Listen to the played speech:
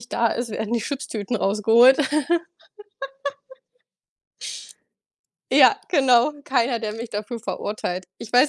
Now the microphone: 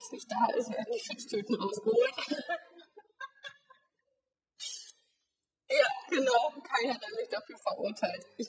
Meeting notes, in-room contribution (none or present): none